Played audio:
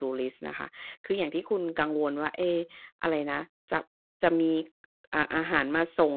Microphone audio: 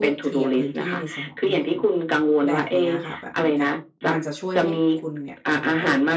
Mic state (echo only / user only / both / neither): both